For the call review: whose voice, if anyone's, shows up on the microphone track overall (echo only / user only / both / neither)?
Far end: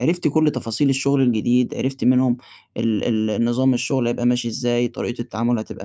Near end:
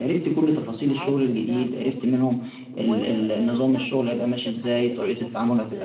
both